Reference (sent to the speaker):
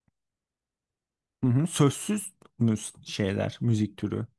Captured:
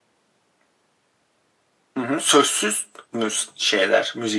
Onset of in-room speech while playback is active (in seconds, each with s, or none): none